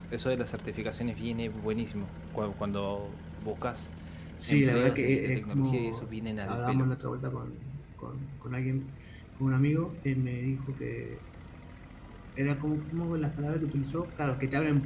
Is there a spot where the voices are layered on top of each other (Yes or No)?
Yes